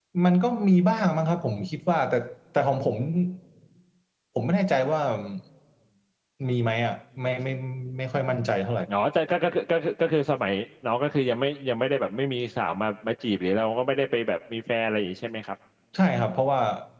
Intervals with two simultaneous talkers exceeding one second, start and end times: none

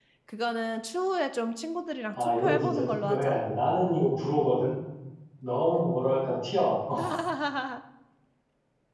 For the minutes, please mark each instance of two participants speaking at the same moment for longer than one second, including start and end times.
2.1-3.4

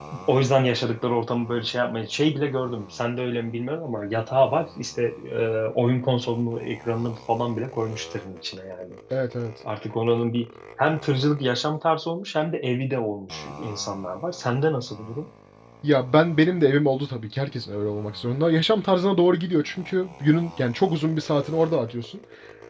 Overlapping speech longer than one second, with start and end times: none

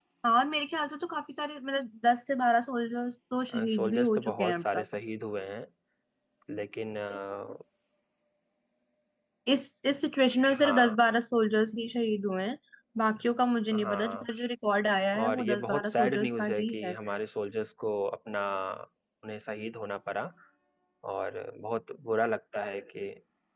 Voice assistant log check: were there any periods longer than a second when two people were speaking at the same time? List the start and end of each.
3.5-4.8, 15.2-16.9

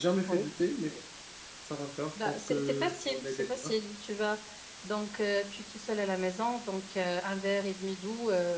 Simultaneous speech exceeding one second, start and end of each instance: 2.2-3.7

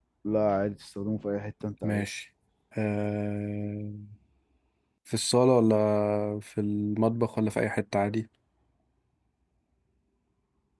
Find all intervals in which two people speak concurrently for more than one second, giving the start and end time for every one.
none

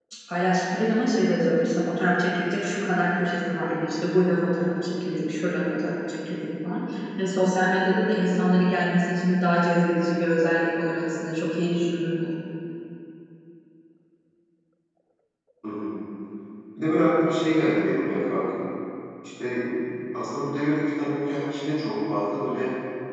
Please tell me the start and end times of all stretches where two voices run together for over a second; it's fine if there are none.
none

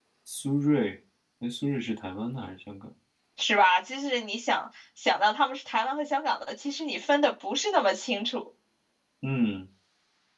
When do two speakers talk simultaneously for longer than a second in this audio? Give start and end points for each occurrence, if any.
none

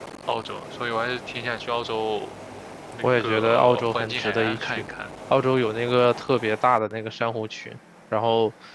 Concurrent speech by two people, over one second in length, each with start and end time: 3.0-4.8

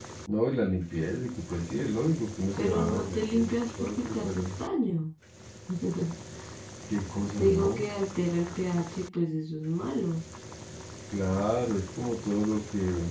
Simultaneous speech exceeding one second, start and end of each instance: 2.6-4.5

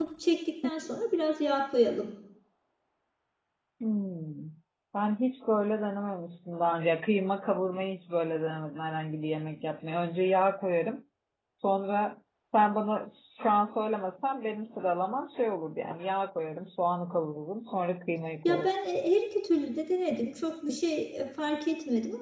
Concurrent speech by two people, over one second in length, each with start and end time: none

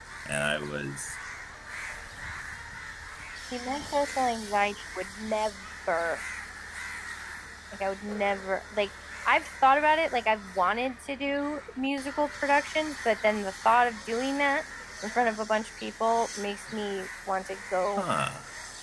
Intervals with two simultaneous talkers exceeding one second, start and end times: none

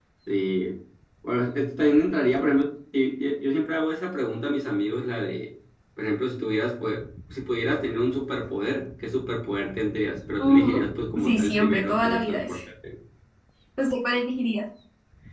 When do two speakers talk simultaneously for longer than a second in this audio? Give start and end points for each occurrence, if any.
11.2-12.6

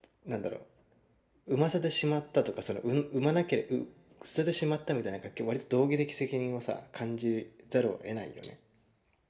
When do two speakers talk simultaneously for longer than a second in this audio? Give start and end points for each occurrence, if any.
none

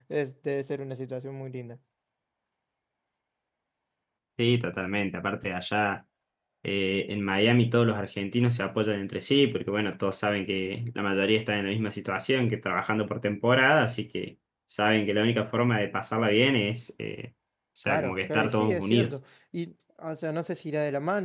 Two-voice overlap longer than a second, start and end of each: 17.9-19.1

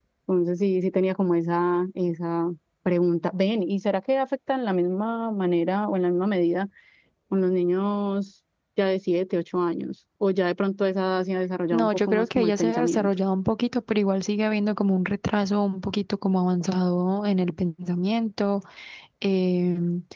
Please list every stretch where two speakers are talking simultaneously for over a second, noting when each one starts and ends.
11.7-13.1

